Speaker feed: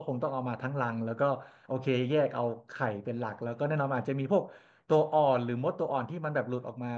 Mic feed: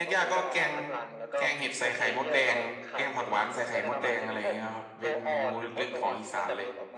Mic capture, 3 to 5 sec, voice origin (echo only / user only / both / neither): both